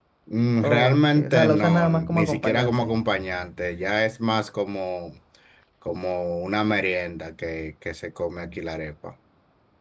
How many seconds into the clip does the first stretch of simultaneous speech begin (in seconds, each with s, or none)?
0.6 s